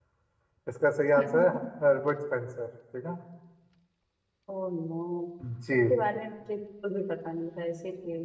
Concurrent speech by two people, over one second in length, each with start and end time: none

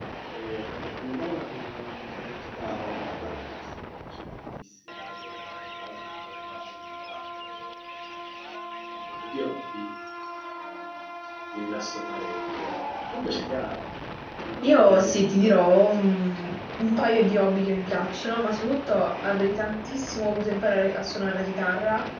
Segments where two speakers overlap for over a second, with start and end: 14.6-16.6

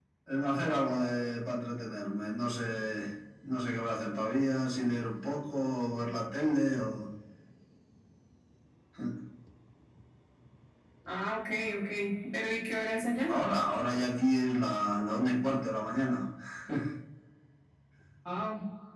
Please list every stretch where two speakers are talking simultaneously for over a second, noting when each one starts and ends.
none

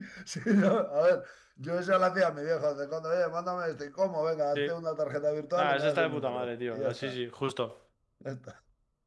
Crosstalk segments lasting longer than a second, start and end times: 5.6-7.2

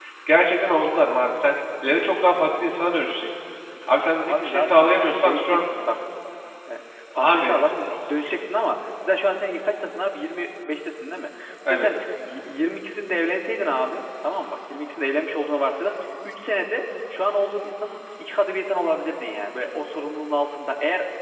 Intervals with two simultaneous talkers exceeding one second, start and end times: 4.2-5.7

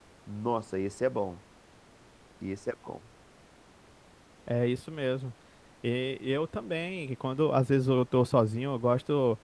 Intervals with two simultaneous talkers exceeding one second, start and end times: none

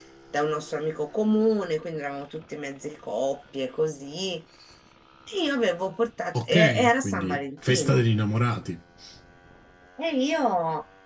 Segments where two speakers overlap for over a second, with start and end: 6.3-8.0

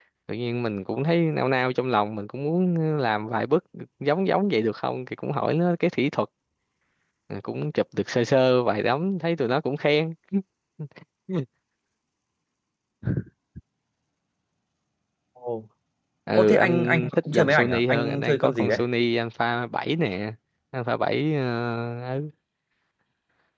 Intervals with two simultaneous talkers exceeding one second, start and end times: 16.3-18.8

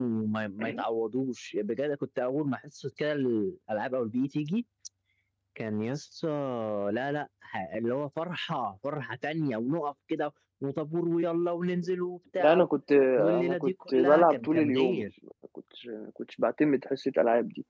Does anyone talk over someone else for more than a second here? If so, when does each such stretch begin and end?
13.4-15.1

